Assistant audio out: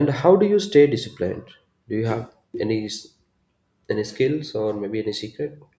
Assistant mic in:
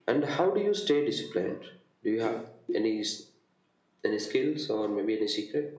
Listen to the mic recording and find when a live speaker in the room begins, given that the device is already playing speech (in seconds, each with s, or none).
none